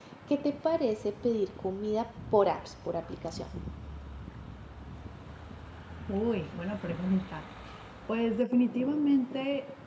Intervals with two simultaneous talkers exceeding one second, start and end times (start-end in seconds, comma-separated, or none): none